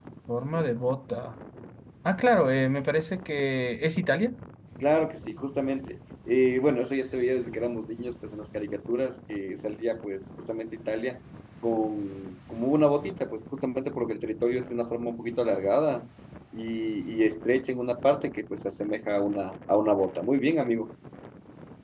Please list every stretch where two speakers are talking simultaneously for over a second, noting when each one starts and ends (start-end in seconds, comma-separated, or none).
none